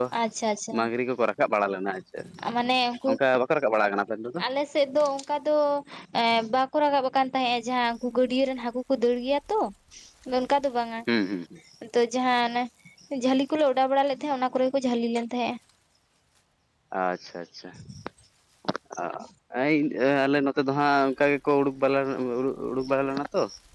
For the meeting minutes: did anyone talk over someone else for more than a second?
No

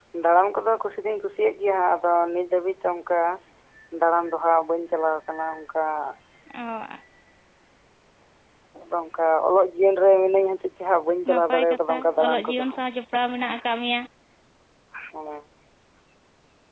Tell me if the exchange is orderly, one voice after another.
No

